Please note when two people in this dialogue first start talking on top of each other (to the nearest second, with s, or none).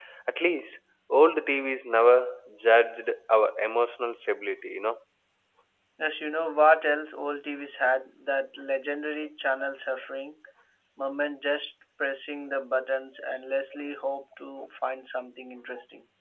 none